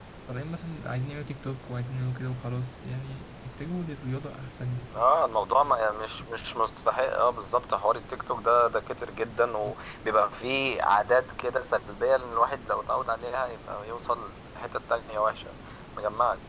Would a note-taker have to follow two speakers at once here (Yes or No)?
No